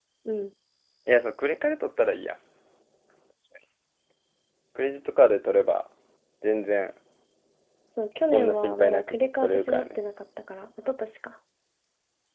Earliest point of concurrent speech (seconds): 8.3 s

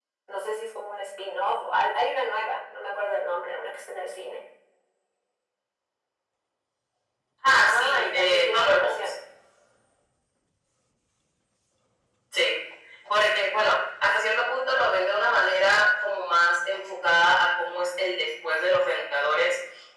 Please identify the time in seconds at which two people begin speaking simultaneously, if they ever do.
7.6 s

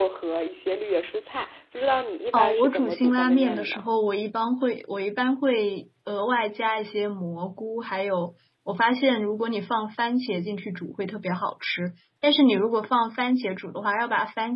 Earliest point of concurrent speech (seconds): 2.3 s

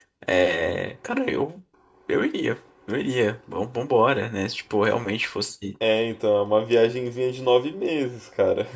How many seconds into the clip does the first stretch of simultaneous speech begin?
none

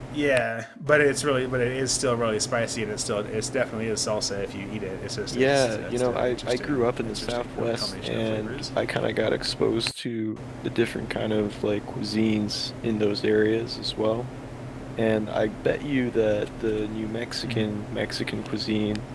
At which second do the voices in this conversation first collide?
5.3 s

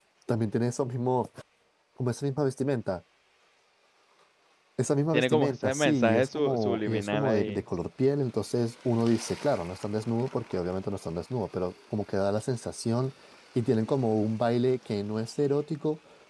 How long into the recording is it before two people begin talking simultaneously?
5.1 s

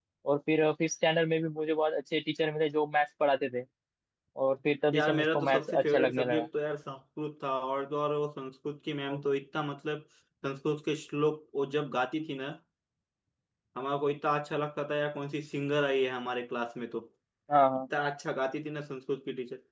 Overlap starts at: 4.9 s

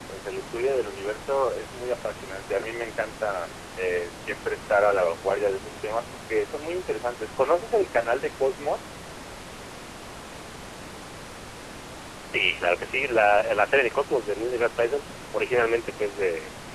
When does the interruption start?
none

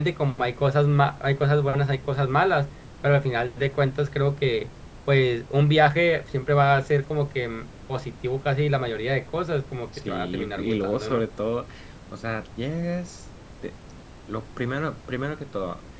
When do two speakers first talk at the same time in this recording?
9.9 s

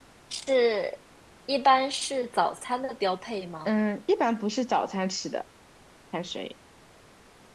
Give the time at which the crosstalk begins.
none

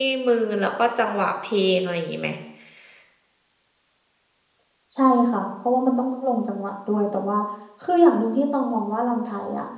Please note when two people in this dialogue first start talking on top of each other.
none

